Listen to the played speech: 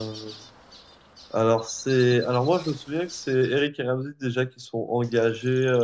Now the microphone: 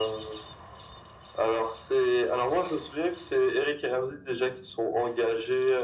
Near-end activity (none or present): none